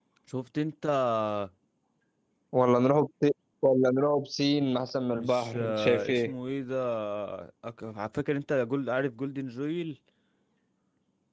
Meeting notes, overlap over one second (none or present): present